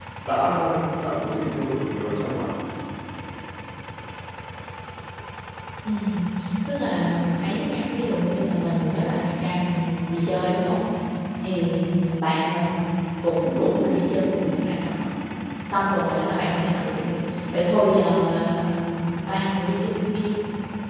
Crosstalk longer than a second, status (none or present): none